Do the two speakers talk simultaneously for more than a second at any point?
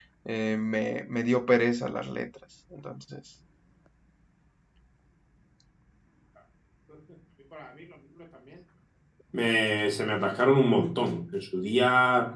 No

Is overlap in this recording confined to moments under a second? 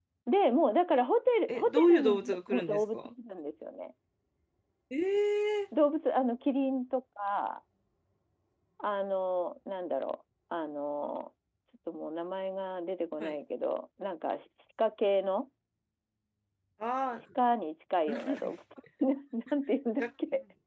No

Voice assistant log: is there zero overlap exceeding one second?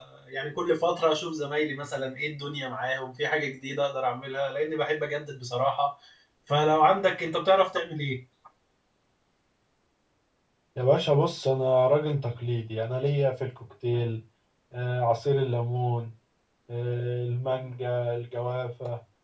Yes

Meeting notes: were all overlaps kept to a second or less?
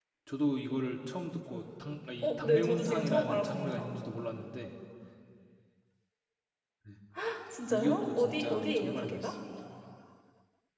No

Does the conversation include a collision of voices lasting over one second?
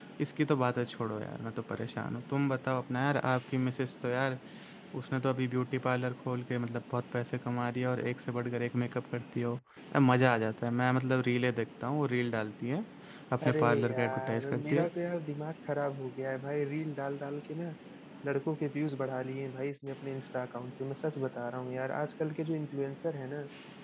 Yes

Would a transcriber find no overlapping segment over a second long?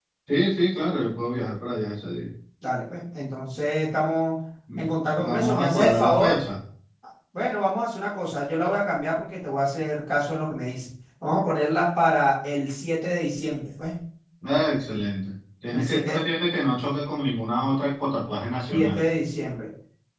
No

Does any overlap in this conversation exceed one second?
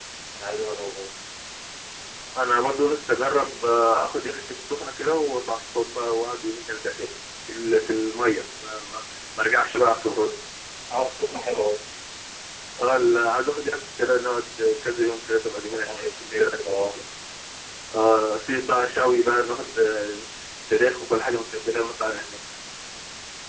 Yes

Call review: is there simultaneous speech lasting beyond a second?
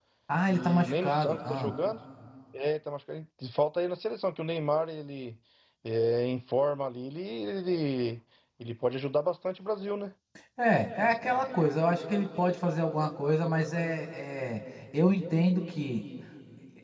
Yes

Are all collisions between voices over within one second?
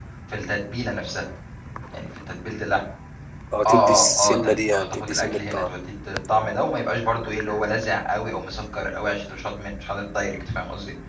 No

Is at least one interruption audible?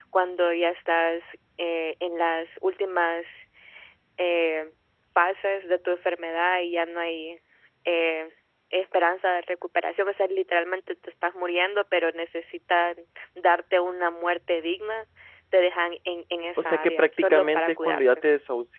Yes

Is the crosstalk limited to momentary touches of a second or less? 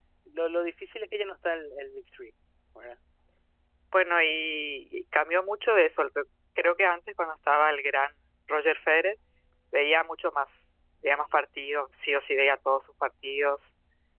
Yes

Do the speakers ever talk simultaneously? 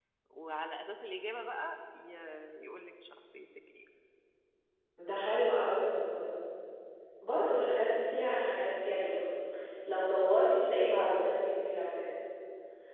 No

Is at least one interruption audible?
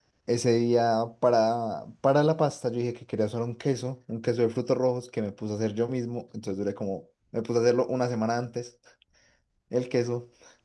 No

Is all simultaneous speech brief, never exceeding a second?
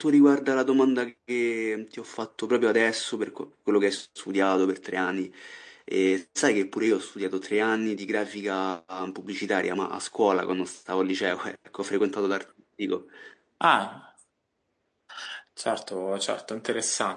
Yes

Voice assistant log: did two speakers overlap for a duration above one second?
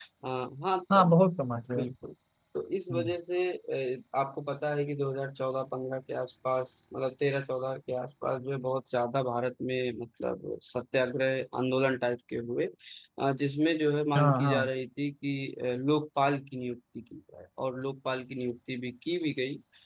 No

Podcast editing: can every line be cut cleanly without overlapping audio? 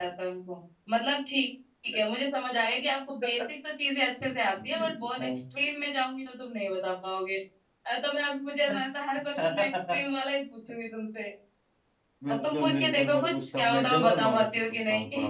No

